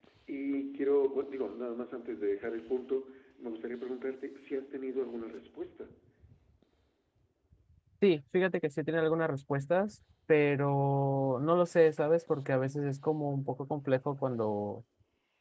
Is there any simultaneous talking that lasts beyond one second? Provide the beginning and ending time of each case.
none

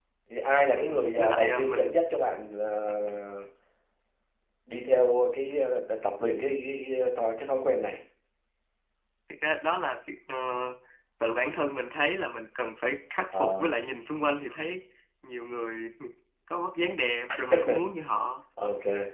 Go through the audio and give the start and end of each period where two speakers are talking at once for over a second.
0.6-1.9

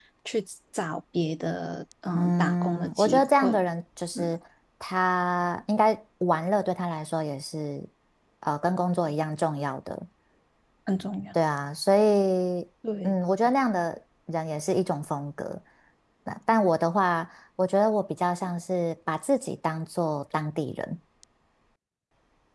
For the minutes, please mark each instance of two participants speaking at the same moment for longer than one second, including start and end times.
2.1-3.6

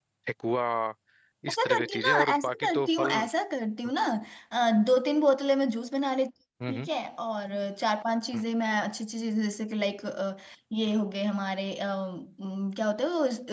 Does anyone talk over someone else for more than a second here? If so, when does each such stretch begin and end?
1.5-3.3

